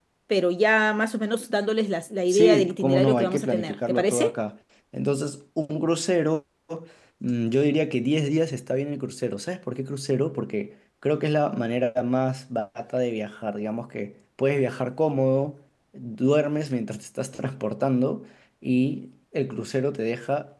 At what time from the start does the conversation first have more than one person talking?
2.3 s

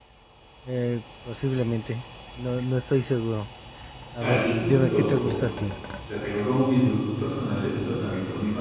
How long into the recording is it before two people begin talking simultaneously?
4.2 s

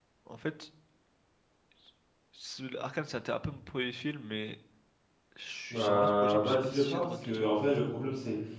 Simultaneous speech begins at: 5.7 s

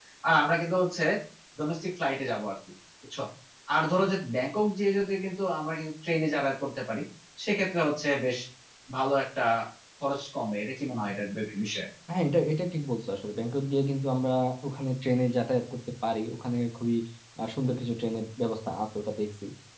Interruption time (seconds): none

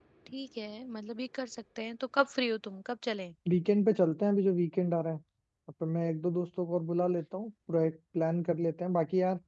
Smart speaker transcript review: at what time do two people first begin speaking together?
none

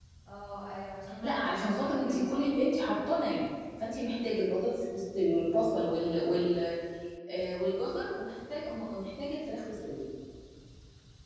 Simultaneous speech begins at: 1.2 s

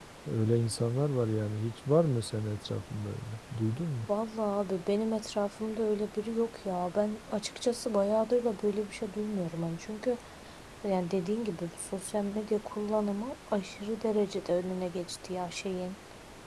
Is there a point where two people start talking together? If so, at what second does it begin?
none

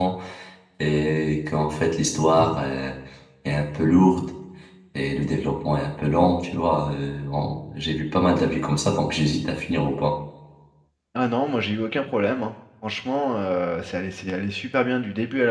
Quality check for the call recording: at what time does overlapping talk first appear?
none

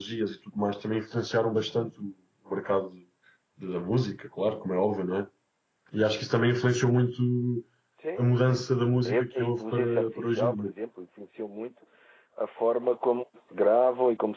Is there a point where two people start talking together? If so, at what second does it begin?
8.2 s

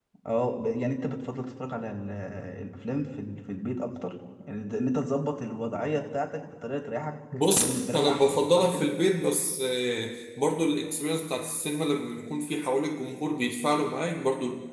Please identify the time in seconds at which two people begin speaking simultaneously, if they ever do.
7.6 s

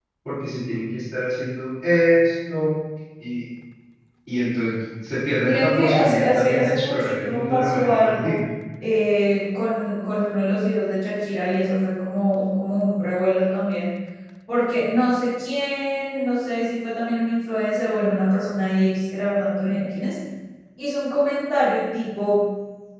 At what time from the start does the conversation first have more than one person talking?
5.5 s

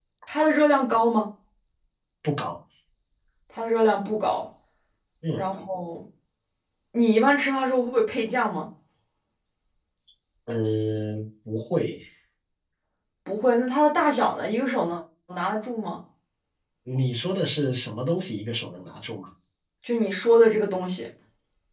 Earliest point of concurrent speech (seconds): none

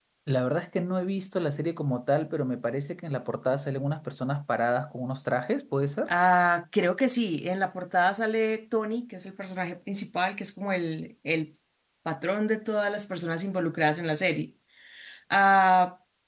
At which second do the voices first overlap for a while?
none

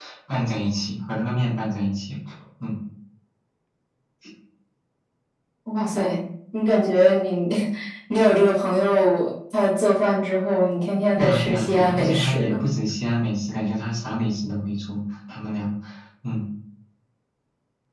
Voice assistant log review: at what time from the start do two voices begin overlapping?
11.2 s

